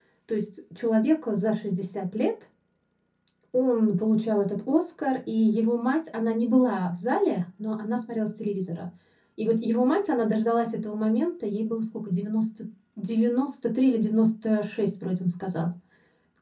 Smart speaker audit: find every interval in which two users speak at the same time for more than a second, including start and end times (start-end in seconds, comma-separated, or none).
none